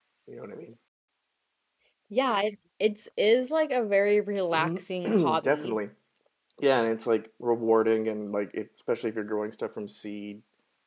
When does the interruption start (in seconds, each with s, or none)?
4.5 s